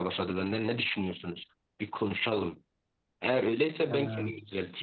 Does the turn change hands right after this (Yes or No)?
No